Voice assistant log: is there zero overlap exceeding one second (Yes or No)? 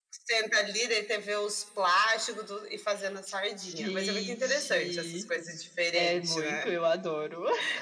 No